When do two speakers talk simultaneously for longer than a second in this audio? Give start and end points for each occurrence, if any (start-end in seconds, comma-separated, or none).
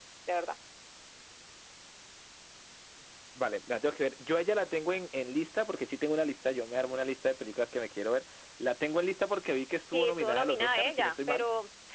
9.9-11.4